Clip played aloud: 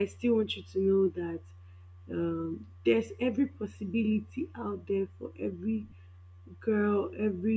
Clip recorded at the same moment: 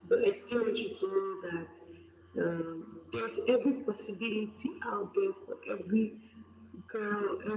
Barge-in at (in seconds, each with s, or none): none